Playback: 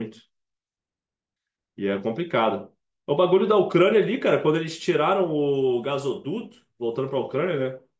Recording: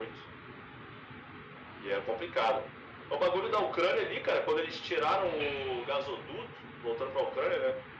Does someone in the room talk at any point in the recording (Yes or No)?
No